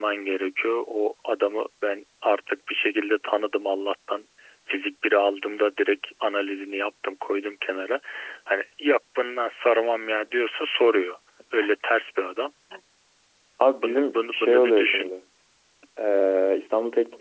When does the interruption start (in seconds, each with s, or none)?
13.8 s